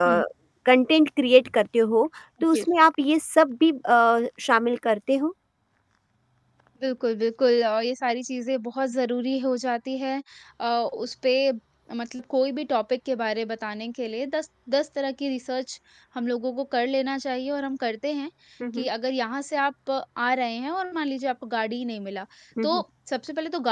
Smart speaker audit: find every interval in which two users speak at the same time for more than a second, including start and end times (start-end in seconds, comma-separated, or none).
none